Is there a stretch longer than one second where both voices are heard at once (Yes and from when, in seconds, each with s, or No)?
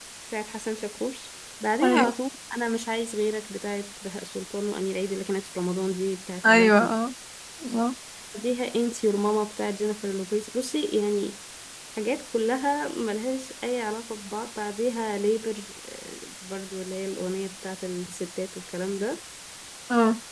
No